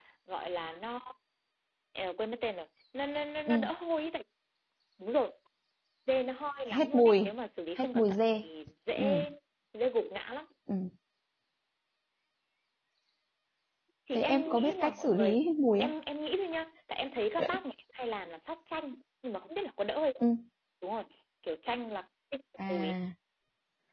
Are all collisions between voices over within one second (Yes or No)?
No